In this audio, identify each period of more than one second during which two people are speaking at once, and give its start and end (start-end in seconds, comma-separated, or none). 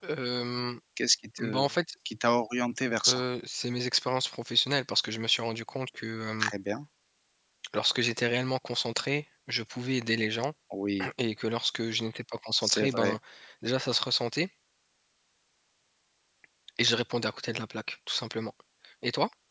none